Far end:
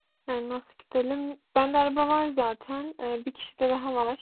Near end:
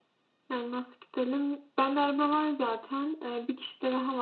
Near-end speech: none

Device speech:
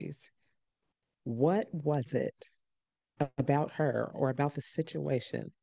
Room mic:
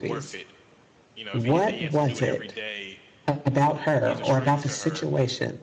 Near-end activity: present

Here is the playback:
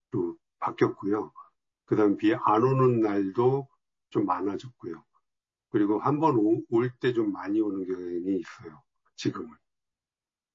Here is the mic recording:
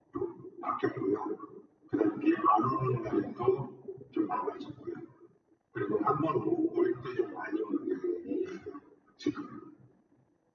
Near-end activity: none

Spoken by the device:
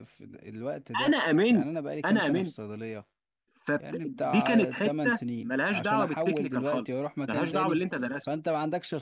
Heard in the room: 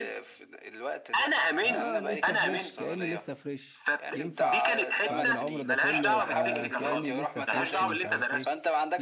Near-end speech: present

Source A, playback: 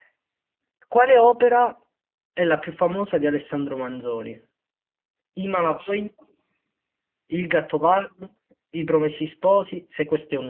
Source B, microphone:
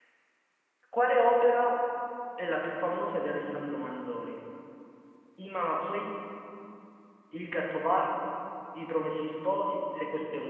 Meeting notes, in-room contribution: none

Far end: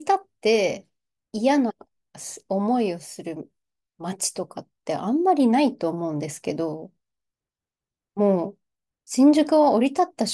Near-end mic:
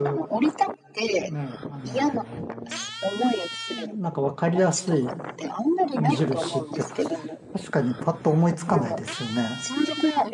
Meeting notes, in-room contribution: present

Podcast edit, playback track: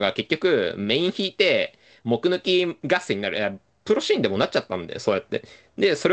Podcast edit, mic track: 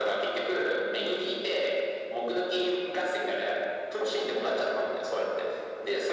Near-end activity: none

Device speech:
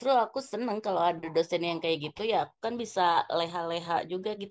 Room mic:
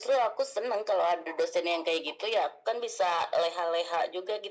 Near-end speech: none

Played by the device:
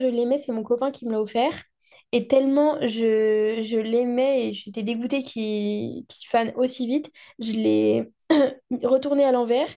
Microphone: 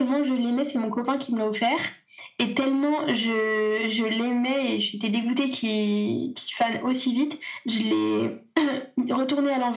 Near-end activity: none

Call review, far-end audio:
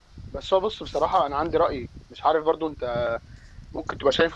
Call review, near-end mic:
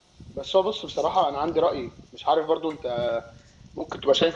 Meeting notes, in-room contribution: none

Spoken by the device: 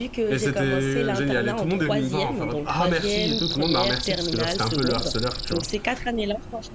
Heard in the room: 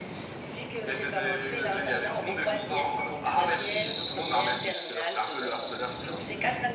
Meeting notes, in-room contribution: none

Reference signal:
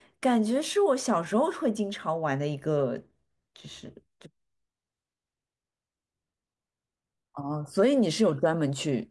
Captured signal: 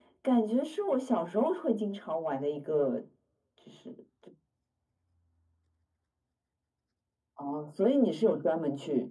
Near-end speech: none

